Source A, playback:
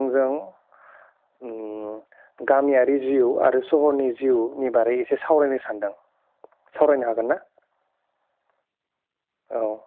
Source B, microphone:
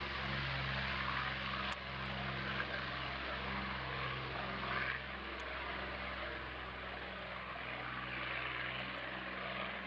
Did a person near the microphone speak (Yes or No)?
No